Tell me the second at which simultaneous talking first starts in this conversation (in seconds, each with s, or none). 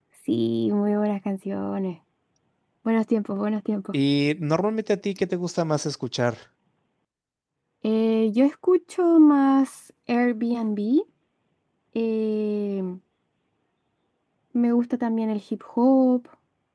none